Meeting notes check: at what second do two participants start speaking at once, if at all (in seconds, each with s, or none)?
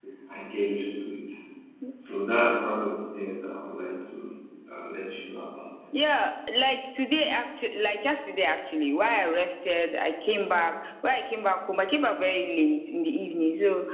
none